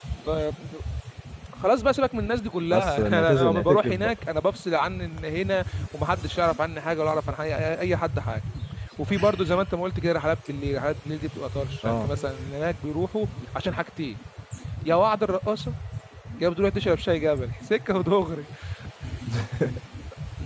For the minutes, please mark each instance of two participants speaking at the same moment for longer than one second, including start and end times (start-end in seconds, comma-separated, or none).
2.7-4.1